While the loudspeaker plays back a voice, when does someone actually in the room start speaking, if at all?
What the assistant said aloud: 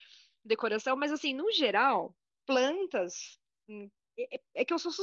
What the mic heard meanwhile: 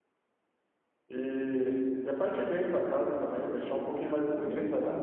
1 s

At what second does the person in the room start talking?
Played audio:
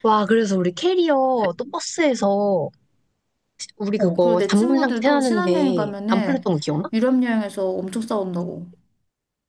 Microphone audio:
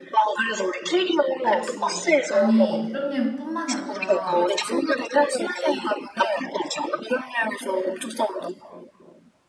1 s

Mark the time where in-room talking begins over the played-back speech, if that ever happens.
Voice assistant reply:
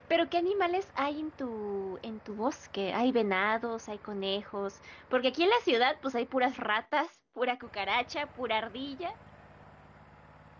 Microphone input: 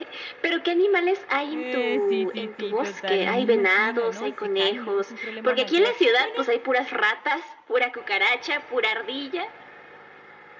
1 s

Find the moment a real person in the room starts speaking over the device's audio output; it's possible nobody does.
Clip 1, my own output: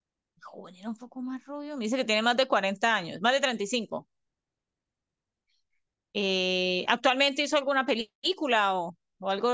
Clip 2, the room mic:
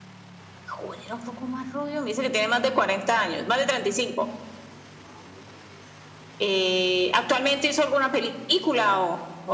none

